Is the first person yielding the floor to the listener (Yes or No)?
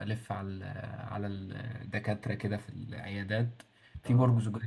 No